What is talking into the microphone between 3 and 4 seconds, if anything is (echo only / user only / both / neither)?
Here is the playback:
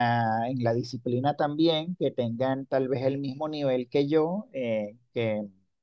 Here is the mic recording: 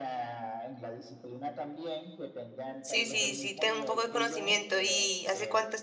both